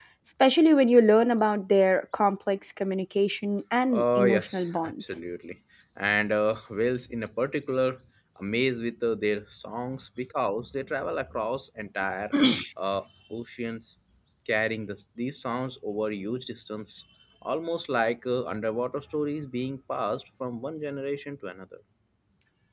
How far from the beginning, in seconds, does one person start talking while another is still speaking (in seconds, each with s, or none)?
3.9 s